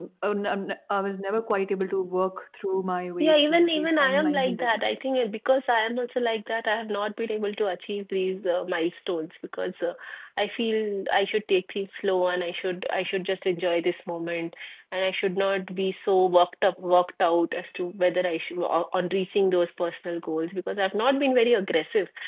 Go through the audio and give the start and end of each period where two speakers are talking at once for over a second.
3.2-5.0

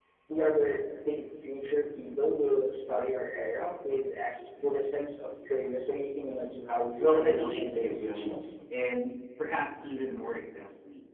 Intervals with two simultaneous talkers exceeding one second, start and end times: 7.0-8.3

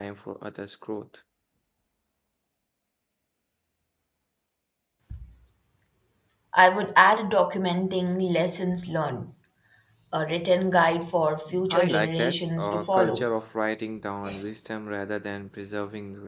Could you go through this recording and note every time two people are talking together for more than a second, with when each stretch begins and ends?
11.7-13.3

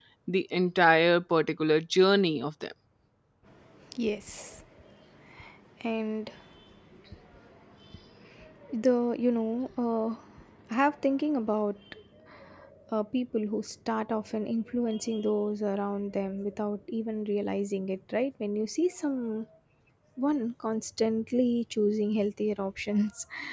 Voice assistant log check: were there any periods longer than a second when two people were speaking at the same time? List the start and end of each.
none

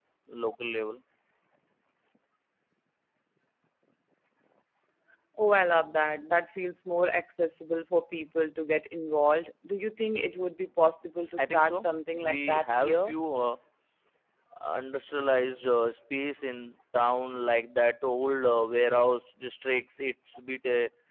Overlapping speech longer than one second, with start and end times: 11.4-13.2

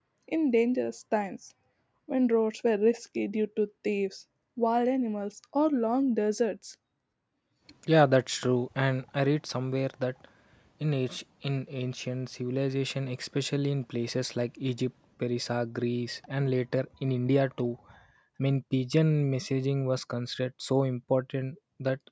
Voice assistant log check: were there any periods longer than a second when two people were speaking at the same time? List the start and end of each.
none

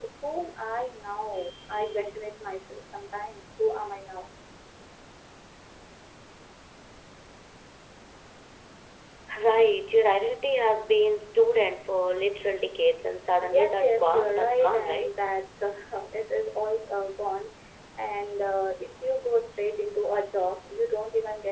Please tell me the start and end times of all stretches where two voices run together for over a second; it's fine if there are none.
13.4-15.1

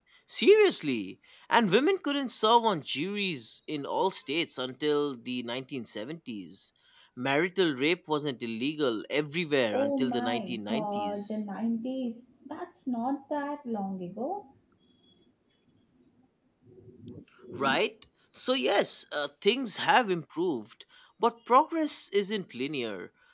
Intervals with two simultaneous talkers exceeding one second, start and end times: 9.7-11.4

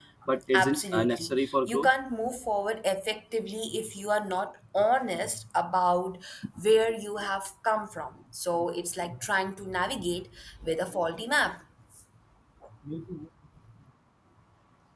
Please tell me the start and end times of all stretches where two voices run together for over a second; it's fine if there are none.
0.5-1.9

